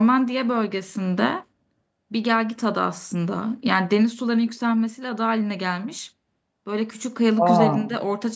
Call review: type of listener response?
listening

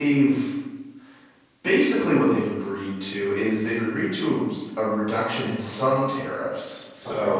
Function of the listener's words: listening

